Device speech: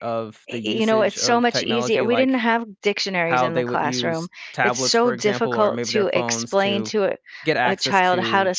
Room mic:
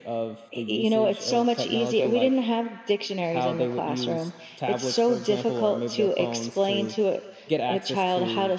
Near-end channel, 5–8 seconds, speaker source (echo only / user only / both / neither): echo only